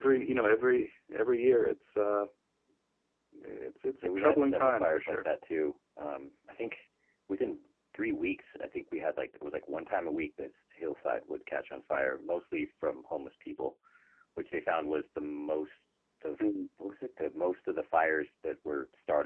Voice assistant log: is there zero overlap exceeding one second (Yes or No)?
No